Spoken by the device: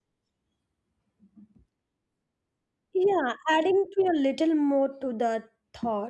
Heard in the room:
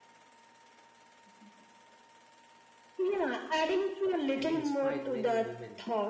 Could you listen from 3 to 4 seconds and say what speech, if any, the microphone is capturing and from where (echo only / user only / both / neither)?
echo only